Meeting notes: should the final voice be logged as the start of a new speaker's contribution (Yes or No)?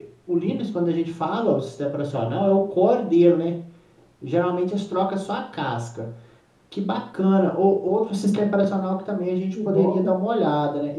No